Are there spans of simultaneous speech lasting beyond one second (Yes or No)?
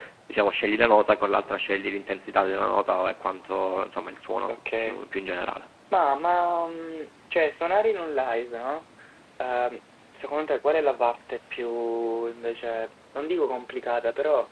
No